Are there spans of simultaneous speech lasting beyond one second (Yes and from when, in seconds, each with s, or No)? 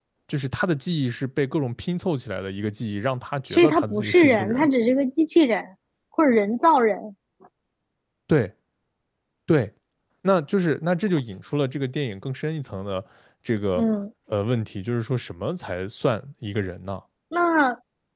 Yes, from 3.5 s